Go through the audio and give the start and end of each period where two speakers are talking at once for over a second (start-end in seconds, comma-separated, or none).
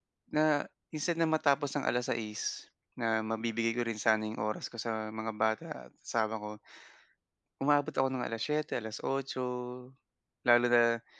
none